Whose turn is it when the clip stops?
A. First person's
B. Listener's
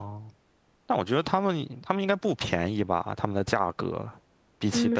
B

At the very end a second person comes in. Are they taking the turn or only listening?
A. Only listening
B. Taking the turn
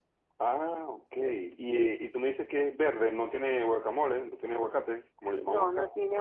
B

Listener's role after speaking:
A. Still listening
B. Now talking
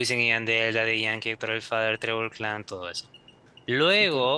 A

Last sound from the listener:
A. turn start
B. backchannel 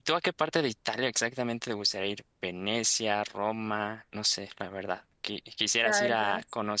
B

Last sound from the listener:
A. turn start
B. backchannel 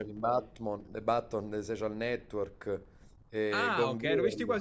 A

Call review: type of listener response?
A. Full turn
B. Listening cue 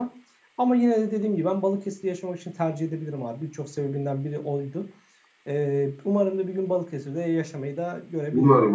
A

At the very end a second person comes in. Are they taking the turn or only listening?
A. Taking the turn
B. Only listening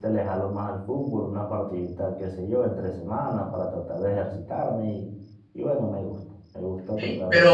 A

